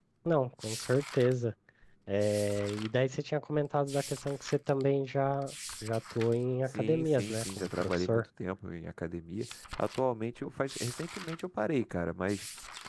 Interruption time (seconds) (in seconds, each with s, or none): 6.7 s